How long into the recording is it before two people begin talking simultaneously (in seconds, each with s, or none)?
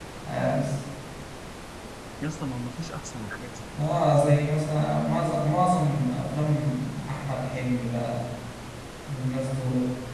none